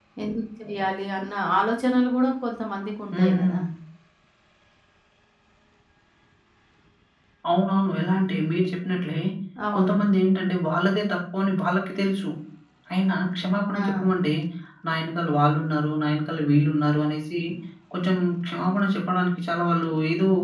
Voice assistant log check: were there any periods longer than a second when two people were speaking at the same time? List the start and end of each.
none

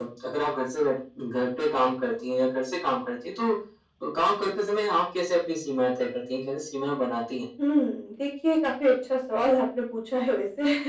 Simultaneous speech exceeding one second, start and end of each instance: none

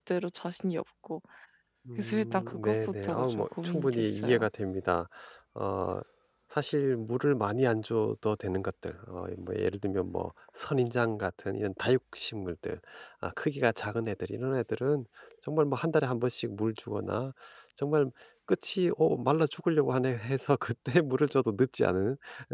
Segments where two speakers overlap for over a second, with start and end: 2.0-4.5

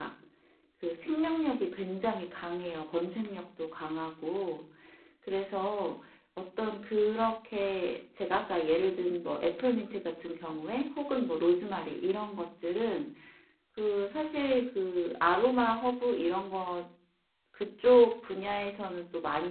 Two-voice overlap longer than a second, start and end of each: none

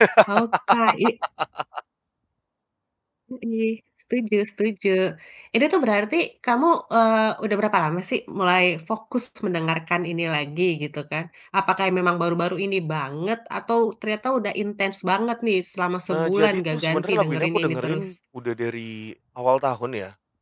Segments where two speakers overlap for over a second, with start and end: 16.1-18.1

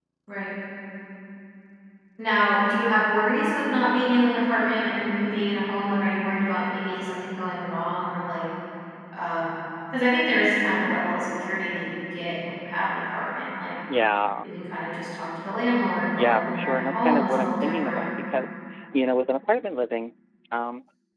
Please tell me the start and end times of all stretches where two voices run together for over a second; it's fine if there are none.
16.1-18.0

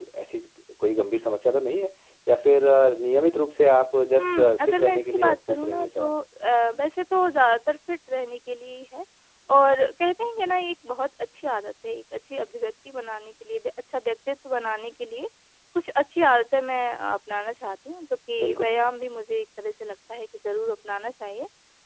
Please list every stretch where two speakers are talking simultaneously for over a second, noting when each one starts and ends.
4.2-6.2

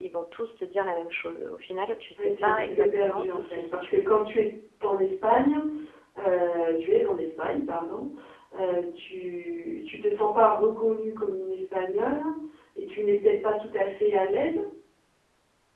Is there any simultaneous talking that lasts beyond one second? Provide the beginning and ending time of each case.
2.2-4.0

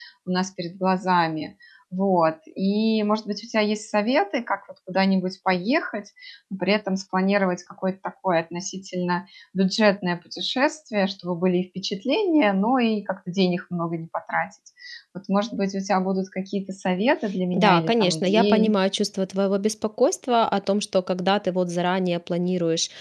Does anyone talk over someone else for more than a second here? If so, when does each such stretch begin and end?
17.5-18.8

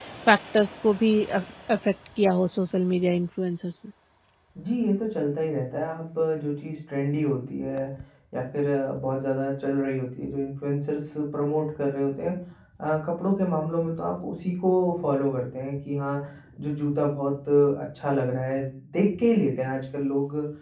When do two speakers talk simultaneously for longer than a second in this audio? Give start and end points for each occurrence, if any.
none

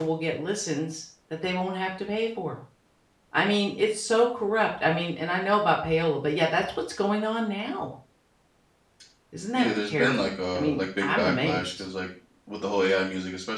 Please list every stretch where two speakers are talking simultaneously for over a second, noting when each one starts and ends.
9.6-11.8

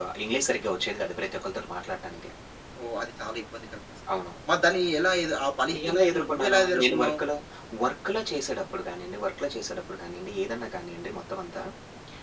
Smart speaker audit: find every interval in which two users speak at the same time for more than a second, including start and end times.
5.9-7.2

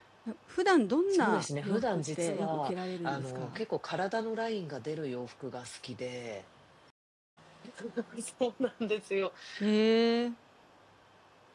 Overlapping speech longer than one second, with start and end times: 1.1-3.6

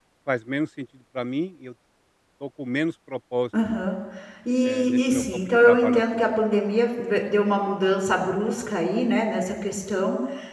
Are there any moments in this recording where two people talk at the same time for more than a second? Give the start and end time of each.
4.6-6.3

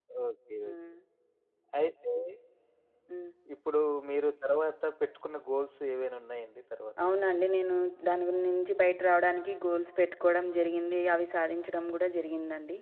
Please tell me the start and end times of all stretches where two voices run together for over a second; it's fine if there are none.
none

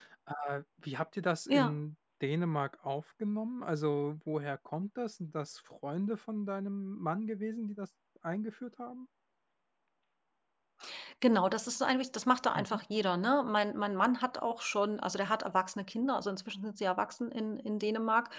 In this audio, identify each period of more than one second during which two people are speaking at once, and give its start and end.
none

